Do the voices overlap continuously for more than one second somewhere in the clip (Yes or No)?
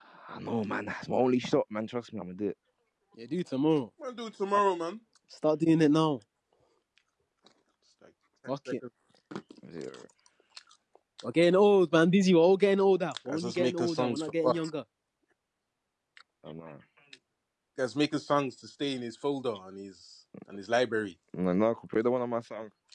Yes